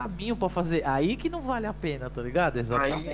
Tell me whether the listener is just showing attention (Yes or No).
No